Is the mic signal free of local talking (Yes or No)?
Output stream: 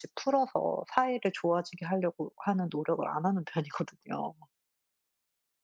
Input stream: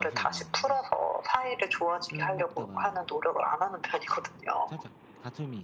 No